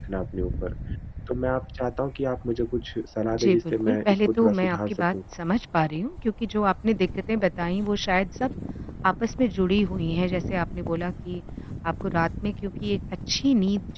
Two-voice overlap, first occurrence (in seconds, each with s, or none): 3.3 s